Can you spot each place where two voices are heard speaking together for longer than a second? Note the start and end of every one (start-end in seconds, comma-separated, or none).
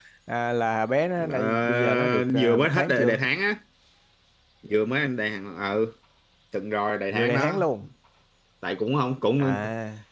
1.3-3.2